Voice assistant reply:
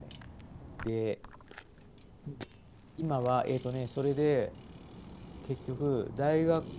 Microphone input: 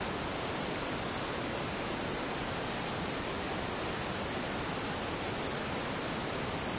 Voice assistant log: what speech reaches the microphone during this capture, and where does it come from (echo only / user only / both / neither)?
neither